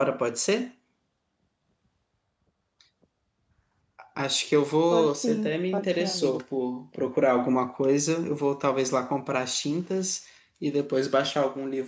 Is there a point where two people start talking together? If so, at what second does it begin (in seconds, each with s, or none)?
4.9 s